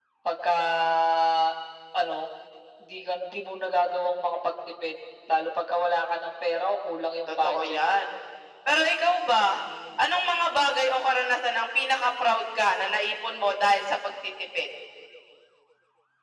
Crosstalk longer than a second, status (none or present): none